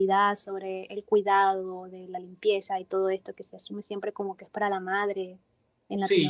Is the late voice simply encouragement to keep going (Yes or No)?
No